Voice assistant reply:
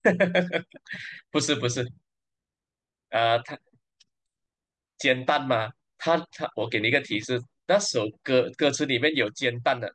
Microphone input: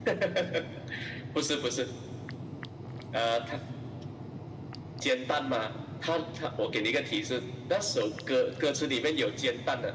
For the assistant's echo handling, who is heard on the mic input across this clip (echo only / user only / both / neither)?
echo only